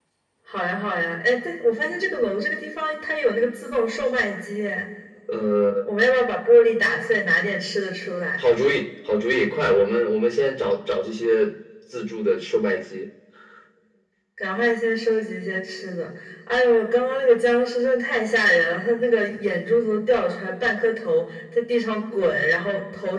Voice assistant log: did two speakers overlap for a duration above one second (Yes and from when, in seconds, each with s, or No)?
No